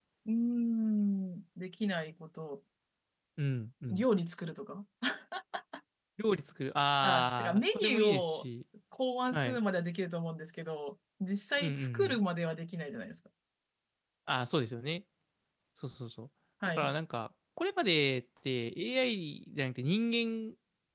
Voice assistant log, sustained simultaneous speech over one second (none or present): present